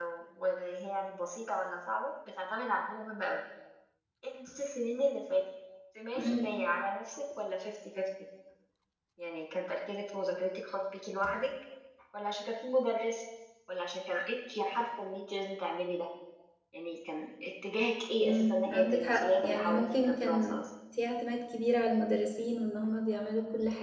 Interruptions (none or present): present